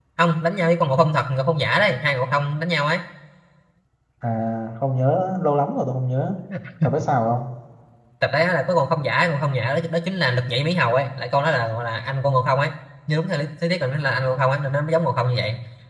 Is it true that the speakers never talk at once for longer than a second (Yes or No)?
Yes